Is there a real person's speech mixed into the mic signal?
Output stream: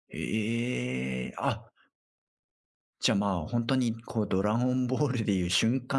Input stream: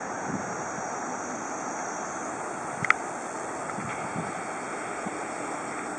No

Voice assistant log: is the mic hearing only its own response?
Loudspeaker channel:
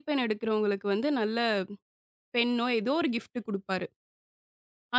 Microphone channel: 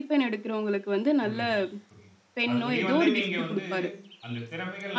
No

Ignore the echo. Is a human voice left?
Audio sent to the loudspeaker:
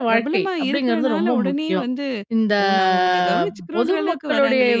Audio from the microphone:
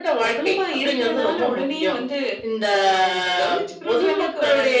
No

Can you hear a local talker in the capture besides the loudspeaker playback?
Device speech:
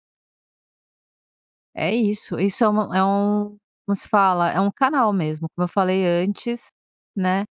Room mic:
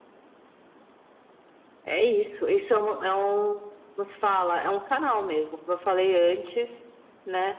No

